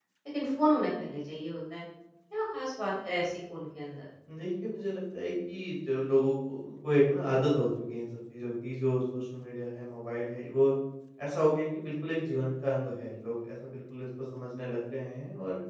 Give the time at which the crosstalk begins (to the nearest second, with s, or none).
none